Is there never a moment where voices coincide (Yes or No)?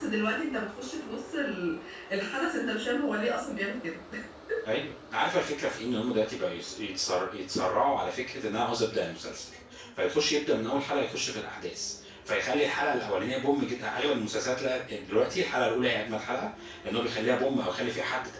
Yes